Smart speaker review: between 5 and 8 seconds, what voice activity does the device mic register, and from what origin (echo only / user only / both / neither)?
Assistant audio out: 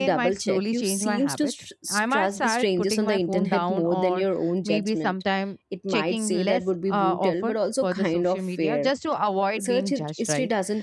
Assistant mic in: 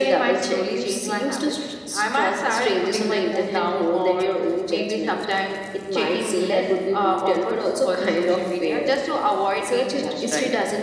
echo only